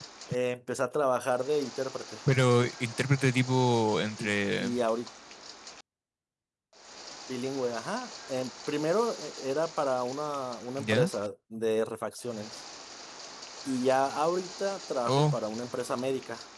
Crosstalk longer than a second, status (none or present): none